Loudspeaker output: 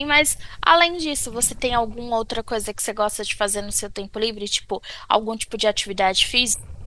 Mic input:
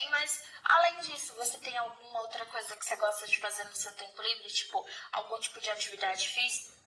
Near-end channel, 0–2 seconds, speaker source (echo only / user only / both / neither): echo only